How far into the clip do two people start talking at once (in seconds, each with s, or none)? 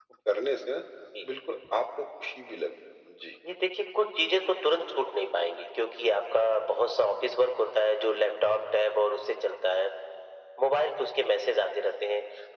none